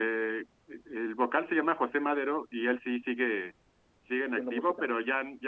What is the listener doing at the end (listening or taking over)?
listening